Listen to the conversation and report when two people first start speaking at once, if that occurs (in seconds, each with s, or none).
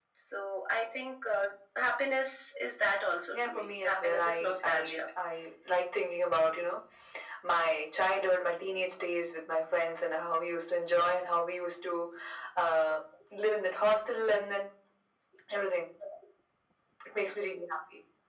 3.3 s